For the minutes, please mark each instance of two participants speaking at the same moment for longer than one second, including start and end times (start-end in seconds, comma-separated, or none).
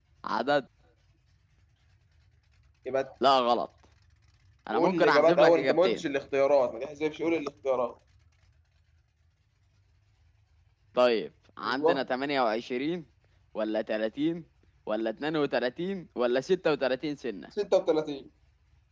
4.7-6.0